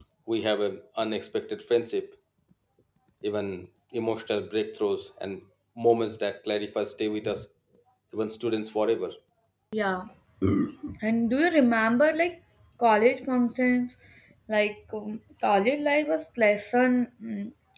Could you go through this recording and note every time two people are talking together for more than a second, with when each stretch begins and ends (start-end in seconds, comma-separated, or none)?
none